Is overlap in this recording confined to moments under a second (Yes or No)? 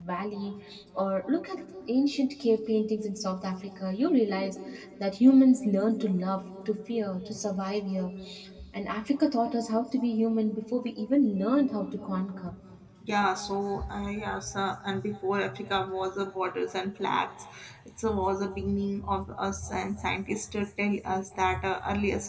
Yes